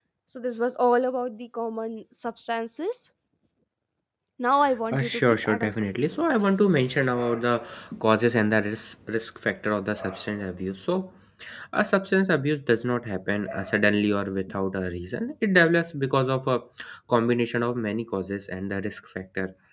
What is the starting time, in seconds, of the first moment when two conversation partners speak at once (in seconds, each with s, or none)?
4.9 s